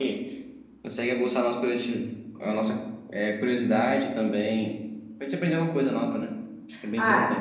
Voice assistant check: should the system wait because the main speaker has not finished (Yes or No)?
No